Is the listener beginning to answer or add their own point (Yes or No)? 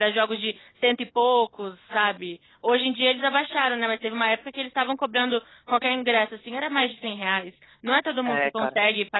No